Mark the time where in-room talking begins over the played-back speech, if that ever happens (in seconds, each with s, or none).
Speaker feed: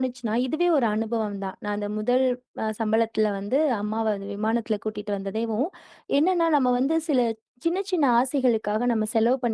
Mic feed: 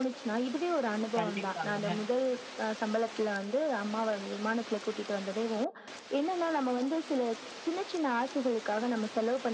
1.2 s